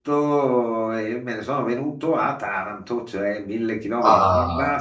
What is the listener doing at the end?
listening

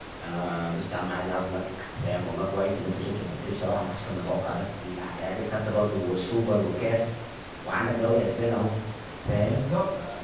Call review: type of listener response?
taking over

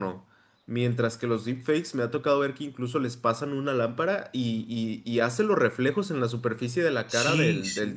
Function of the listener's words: taking over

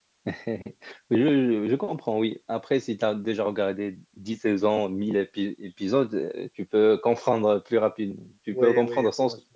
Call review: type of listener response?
taking over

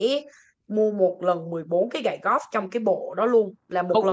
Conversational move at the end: taking over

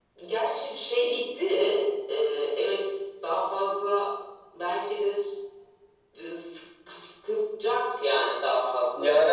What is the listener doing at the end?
taking over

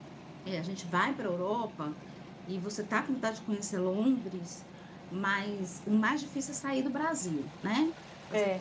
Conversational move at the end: taking over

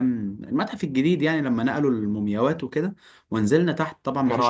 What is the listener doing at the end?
listening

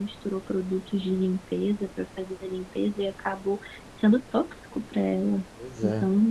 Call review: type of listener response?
listening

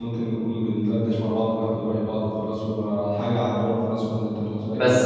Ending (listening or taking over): taking over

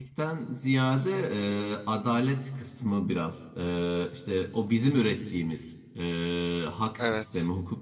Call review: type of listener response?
listening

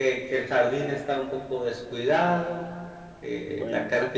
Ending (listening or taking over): listening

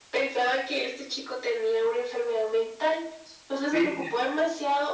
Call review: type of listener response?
listening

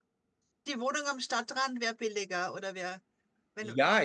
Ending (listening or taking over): taking over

